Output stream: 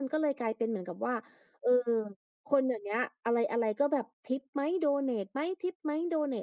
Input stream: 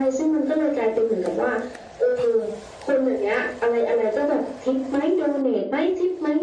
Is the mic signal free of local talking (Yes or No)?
Yes